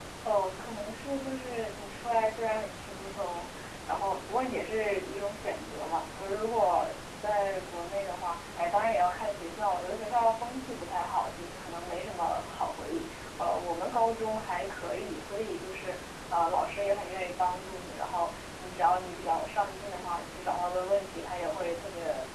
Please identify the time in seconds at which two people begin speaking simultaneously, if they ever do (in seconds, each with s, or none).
none